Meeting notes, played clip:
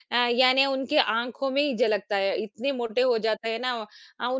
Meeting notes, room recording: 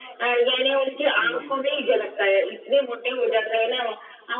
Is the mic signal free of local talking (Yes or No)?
No